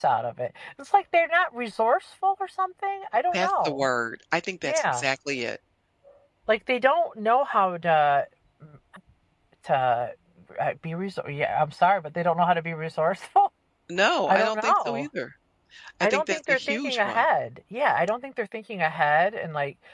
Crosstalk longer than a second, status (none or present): present